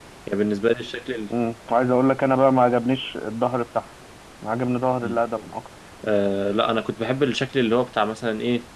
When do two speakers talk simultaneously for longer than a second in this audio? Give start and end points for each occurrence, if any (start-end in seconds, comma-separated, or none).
none